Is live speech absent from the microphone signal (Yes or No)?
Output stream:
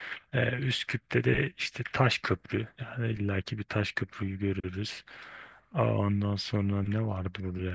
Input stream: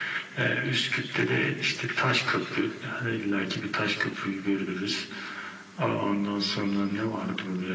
Yes